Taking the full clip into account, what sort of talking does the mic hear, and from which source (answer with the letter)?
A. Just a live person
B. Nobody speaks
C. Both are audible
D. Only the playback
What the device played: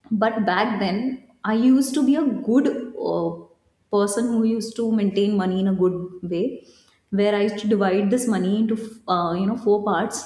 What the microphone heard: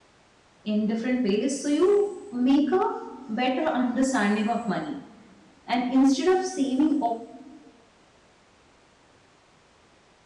A